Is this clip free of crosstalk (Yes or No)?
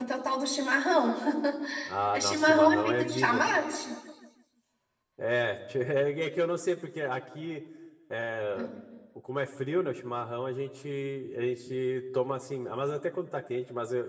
No